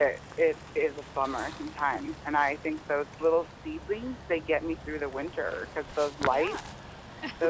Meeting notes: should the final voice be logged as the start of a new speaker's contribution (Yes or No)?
No